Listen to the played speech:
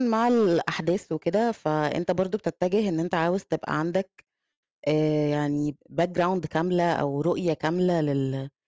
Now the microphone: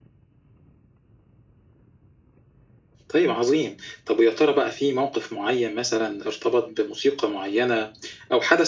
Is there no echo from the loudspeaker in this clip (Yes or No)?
Yes